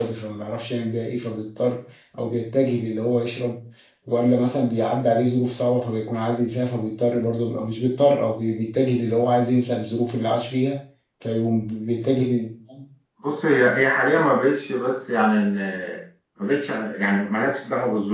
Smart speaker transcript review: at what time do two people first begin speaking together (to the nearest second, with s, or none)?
none